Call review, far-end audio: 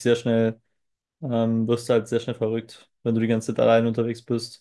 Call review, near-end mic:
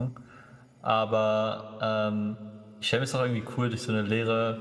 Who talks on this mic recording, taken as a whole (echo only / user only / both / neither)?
user only